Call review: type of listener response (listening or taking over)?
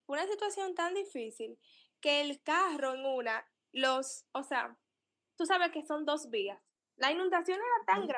listening